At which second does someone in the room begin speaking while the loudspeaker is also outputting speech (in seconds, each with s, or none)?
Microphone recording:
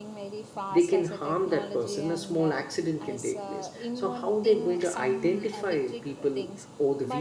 0.7 s